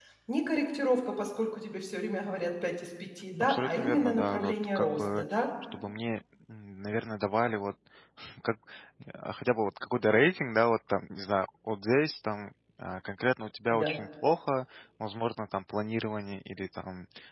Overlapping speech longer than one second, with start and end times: 3.4-5.2

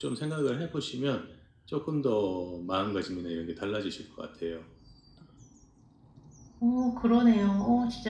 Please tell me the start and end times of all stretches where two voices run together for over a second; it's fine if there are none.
none

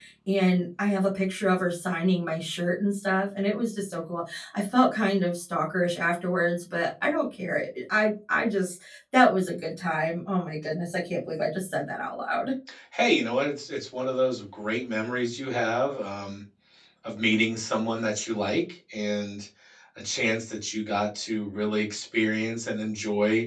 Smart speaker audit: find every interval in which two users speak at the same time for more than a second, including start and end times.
none

